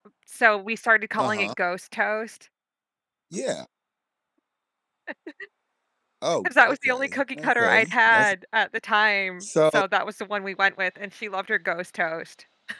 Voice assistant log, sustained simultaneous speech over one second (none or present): present